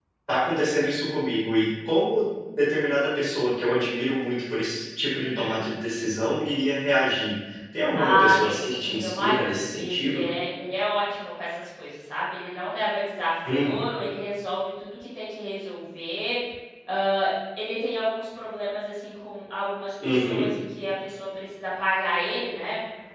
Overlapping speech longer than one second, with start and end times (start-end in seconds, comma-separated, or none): 7.9-10.2